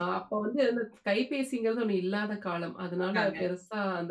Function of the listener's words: listening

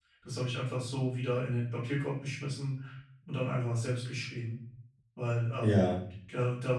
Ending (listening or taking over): listening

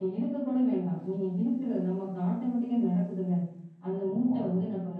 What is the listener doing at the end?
listening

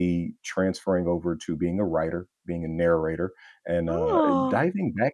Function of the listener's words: listening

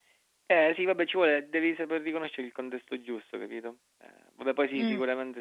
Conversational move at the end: taking over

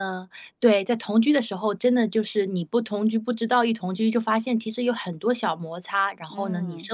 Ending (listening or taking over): listening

